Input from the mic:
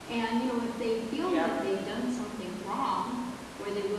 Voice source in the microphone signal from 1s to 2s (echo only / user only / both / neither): both